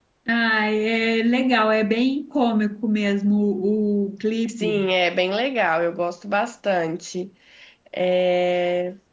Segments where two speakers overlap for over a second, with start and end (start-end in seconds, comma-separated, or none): none